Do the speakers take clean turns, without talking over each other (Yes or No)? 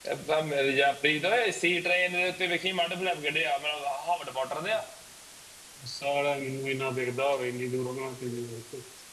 Yes